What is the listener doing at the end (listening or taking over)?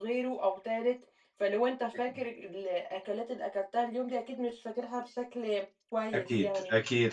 taking over